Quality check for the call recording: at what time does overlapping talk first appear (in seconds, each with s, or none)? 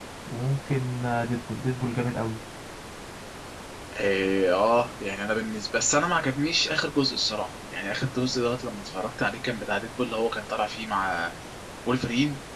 none